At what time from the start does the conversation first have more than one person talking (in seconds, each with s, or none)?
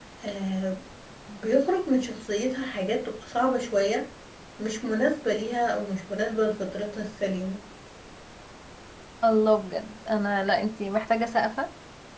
none